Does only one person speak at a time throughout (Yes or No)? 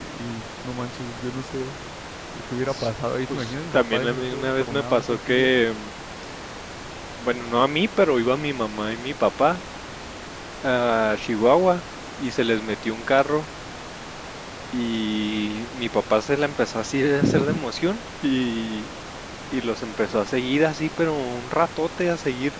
No